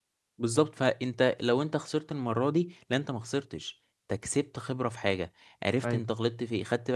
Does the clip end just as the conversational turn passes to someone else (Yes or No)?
No